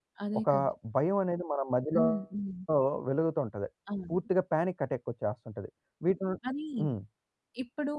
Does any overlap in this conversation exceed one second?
No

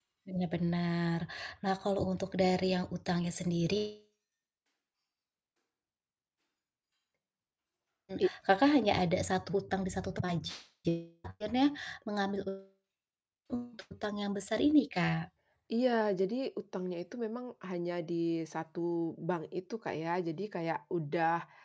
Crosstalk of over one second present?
No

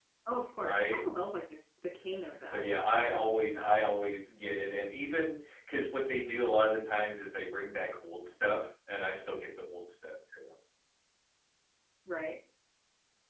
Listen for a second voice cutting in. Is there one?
Yes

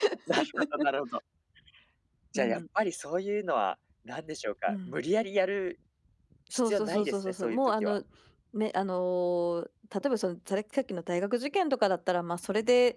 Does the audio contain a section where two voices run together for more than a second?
Yes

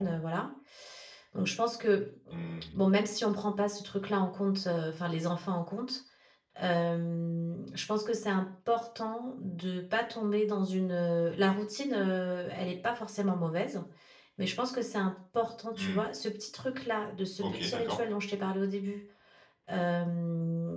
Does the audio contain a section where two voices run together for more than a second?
No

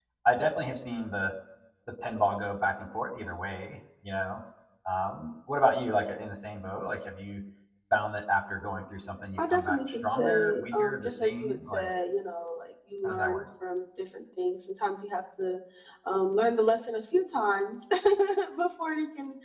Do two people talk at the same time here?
Yes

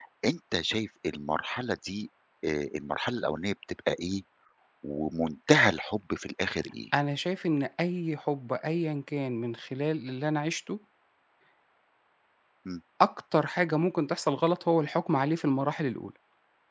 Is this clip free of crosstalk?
Yes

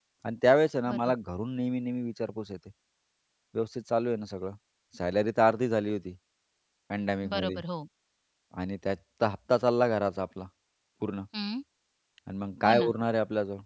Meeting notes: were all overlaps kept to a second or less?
Yes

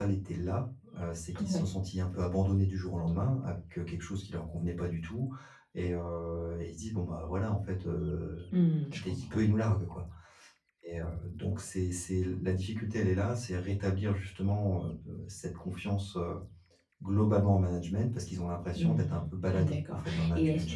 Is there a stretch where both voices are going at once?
Yes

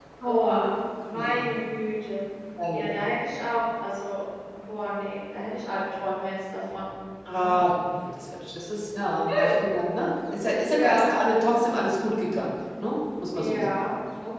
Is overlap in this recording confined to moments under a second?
Yes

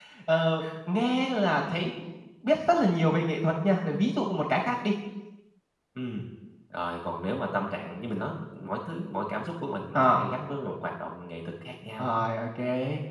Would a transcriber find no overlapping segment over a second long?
Yes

